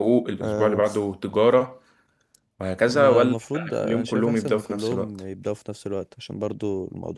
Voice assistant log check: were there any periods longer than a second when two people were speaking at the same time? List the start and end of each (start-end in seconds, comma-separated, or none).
2.9-5.1